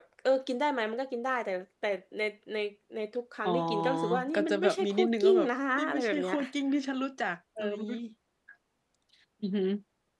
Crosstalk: present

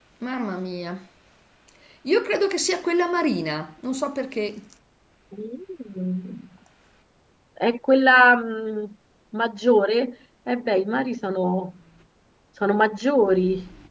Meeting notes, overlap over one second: none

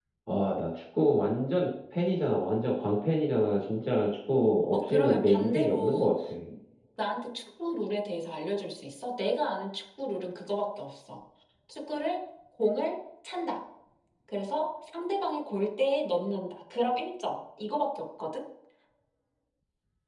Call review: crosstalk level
present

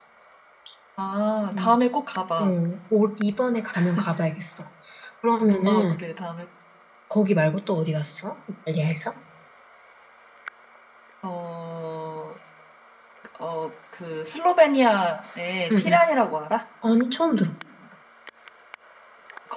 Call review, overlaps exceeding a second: none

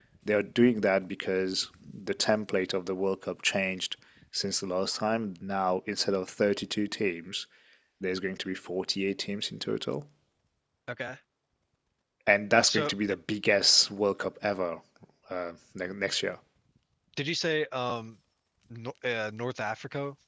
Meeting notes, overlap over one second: none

